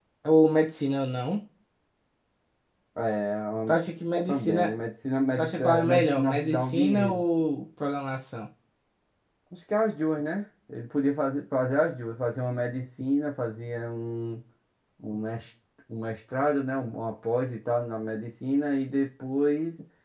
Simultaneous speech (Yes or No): Yes